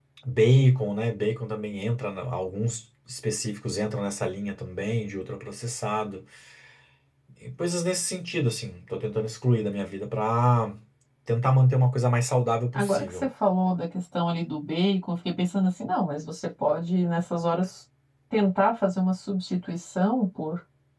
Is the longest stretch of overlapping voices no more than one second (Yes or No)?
Yes